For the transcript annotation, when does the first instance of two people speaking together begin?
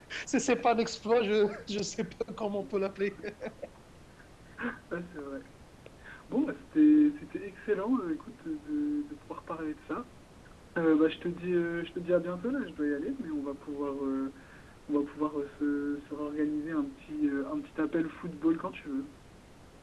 none

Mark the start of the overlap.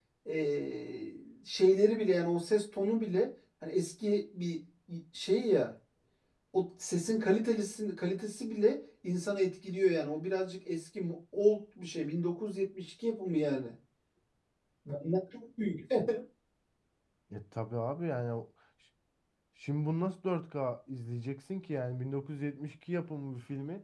none

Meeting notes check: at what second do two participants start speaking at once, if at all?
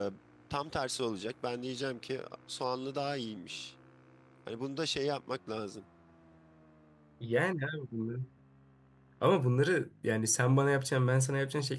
none

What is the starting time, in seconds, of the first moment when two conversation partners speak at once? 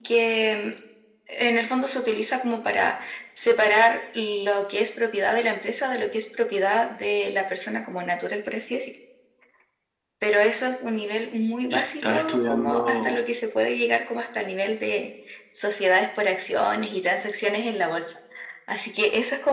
11.7 s

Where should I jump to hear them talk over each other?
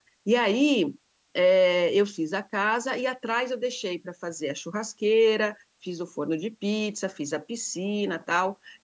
none

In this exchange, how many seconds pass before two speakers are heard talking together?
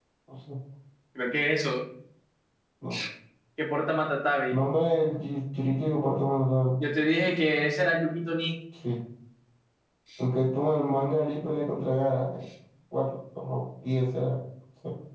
none

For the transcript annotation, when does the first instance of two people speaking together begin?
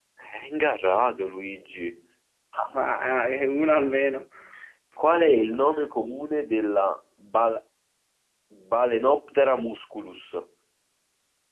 none

